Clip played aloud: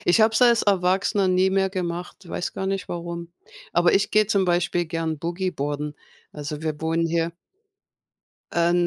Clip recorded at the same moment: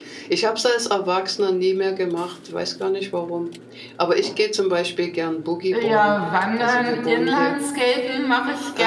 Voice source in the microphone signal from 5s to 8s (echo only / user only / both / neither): both